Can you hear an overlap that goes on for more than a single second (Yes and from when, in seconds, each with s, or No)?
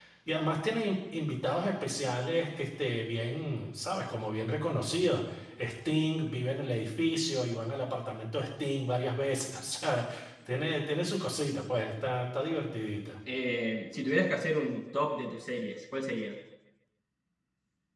No